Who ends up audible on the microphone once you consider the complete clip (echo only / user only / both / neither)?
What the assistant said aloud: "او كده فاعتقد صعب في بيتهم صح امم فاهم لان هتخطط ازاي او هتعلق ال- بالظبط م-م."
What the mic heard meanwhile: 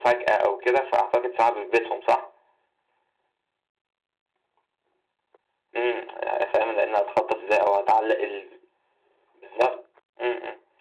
echo only